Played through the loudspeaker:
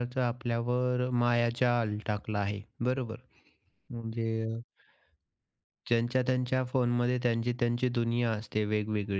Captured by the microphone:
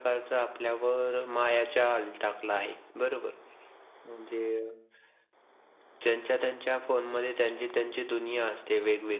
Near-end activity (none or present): none